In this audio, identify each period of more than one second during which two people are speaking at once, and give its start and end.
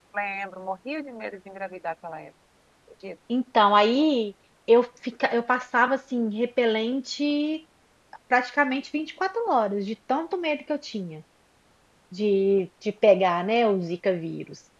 none

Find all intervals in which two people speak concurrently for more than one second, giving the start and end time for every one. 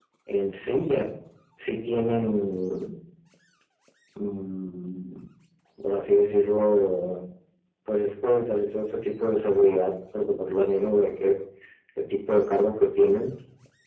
none

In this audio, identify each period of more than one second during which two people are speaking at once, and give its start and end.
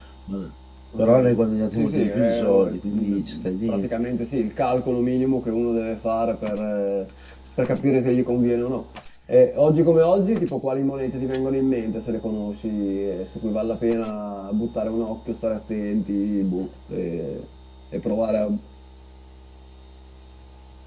1.8-3.9

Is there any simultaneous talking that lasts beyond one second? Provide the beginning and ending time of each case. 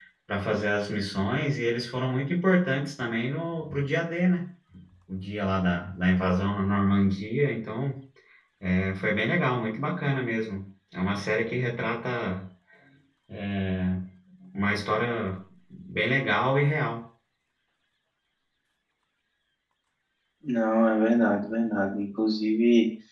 none

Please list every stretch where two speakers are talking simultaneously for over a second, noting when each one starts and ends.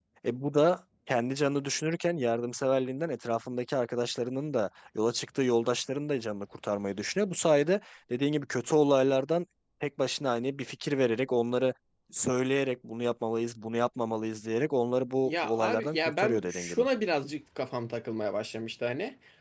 15.2-16.8

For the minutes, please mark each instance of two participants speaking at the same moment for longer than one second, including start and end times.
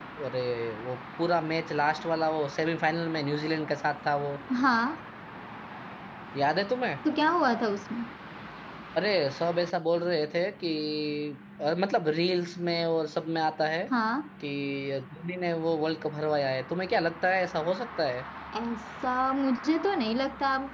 none

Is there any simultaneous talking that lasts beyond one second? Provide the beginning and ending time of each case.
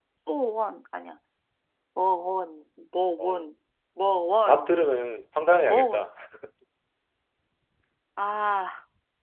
none

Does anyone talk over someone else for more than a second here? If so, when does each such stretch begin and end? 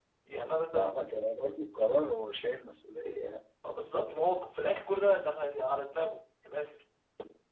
none

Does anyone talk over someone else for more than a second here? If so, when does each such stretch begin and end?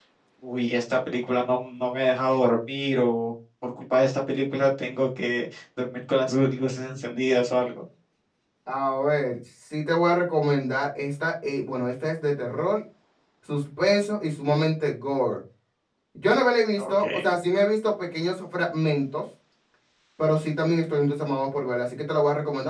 none

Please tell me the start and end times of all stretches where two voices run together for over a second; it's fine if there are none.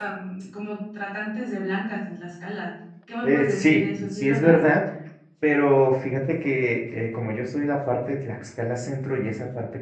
3.2-4.6

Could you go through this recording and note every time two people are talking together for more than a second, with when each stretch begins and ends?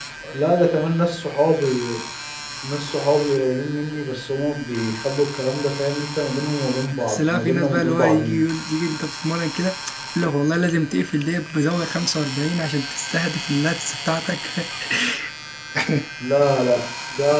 6.9-8.4

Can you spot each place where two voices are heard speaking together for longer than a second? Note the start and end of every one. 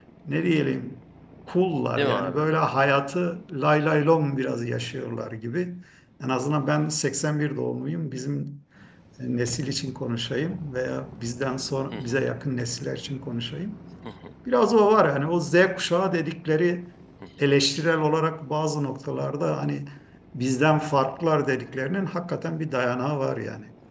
none

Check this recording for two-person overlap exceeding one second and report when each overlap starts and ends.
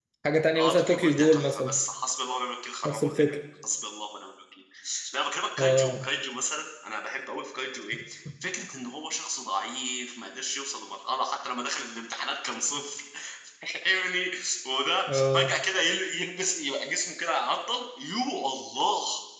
0.6-1.8

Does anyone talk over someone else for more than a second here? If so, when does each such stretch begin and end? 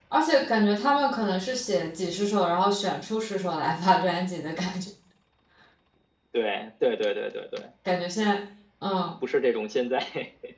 none

